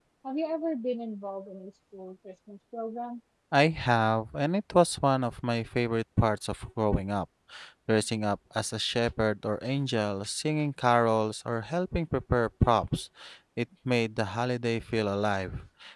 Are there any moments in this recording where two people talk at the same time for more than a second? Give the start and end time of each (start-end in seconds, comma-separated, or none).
none